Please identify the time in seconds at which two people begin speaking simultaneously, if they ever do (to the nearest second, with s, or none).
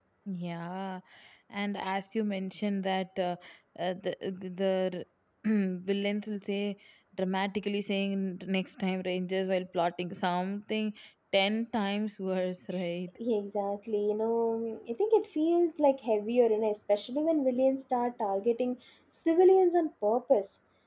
none